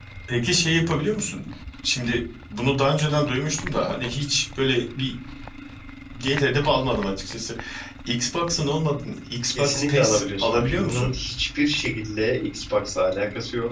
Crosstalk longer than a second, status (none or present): present